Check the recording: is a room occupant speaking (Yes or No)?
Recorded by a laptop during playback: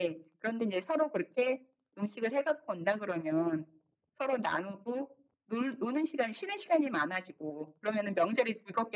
No